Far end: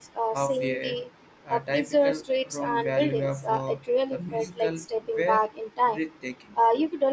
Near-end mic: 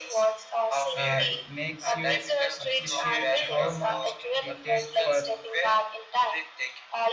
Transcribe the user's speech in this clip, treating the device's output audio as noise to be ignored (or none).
uh, it makes you appreciate how much we take for